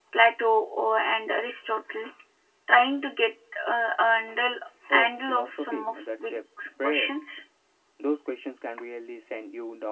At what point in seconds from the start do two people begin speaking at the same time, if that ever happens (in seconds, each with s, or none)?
4.9 s